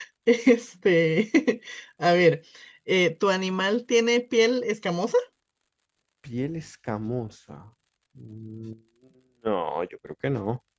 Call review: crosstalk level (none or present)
none